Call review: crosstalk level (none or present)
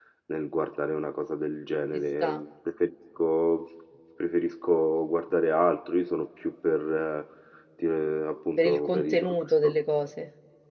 present